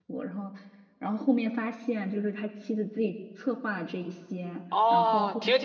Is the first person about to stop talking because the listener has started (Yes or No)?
Yes